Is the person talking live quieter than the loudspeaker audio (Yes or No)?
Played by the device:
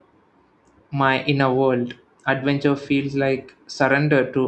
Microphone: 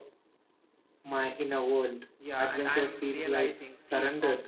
Yes